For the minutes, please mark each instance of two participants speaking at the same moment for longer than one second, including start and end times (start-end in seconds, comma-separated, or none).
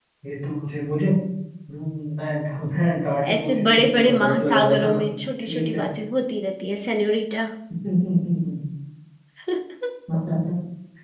3.3-5.0